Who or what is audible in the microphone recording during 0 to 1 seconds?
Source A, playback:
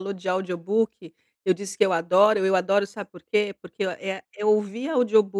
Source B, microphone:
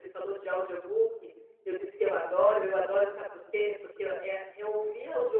echo only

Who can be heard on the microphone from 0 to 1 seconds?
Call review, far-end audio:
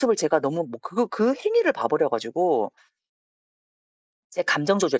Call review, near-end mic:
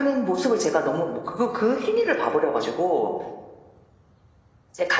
echo only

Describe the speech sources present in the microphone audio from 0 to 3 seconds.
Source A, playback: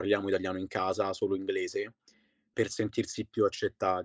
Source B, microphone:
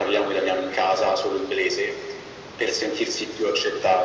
echo only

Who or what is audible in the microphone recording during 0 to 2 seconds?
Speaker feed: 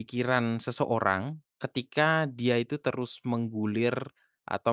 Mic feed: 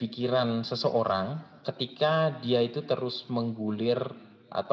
echo only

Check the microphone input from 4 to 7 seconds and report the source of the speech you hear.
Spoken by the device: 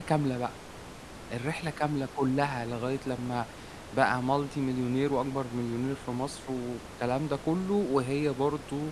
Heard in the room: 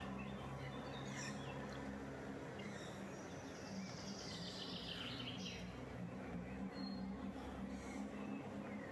neither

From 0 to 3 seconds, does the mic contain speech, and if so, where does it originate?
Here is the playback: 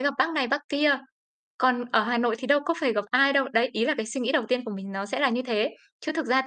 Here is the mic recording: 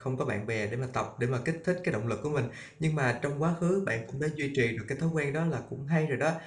user only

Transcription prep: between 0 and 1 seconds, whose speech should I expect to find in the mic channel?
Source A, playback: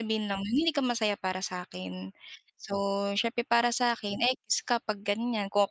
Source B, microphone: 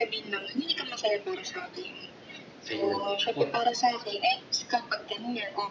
echo only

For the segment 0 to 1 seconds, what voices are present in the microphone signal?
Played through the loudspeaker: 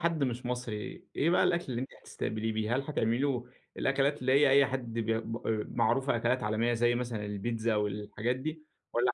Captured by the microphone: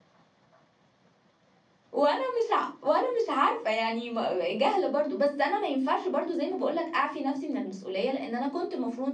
neither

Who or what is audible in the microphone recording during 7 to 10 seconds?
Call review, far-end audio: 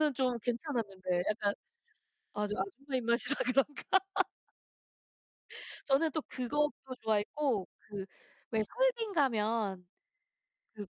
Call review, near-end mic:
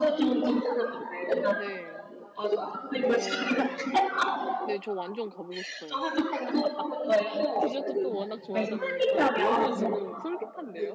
both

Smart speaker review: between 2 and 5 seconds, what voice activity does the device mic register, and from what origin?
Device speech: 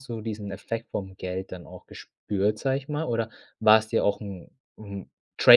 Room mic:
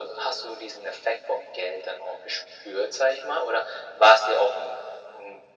echo only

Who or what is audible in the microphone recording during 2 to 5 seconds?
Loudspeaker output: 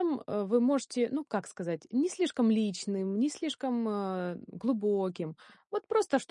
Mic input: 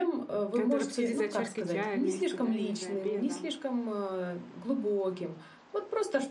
both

